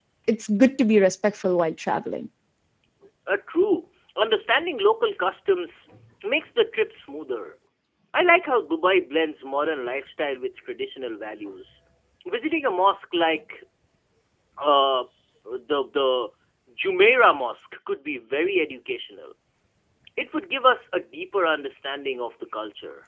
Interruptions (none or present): none